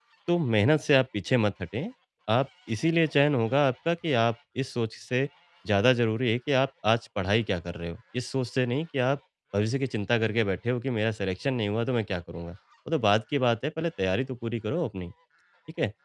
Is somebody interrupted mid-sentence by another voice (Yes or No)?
No